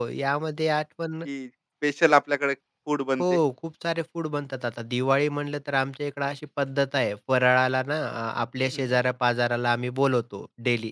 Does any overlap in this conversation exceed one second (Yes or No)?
No